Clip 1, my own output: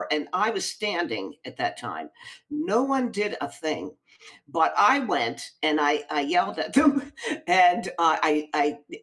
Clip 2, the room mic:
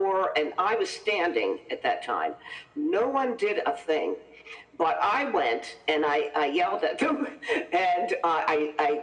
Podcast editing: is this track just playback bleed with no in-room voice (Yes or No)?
Yes